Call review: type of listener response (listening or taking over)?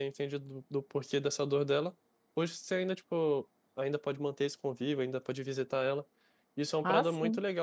listening